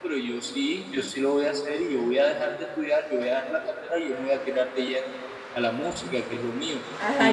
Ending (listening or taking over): taking over